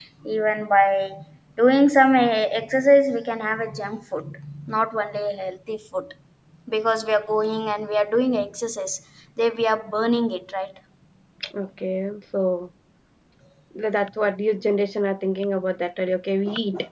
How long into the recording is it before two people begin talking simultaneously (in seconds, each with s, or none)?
none